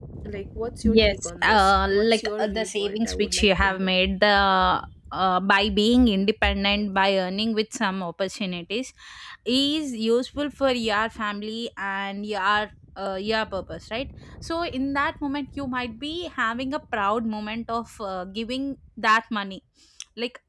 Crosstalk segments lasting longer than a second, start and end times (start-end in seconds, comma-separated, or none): 0.8-3.9